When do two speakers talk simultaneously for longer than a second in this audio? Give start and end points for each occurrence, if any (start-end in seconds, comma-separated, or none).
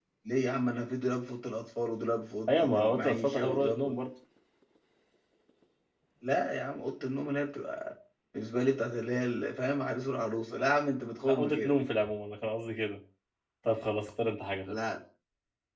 2.5-3.9